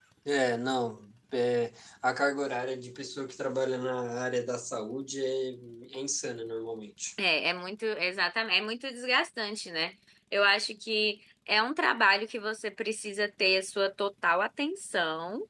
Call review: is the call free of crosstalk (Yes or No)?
Yes